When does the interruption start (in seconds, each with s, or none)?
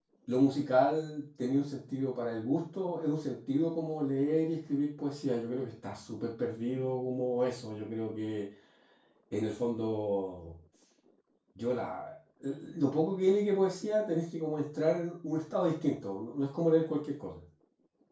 none